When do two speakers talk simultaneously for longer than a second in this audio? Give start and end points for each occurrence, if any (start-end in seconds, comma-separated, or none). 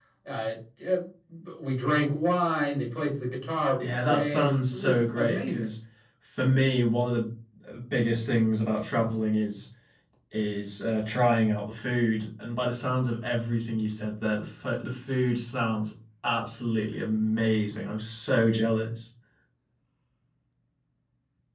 3.8-5.7